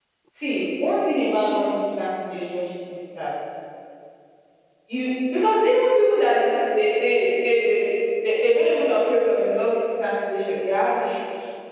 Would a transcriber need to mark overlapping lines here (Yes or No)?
No